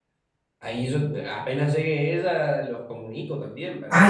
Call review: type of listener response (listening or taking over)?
taking over